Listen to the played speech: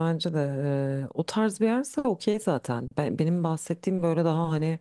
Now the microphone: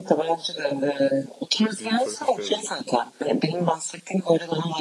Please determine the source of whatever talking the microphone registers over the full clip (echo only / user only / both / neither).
both